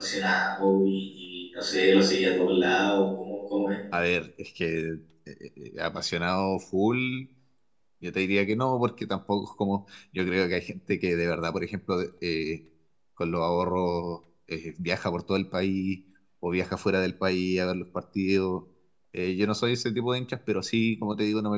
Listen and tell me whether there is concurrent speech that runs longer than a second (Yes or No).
No